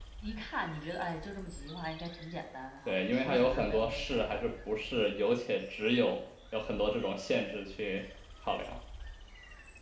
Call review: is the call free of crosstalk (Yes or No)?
No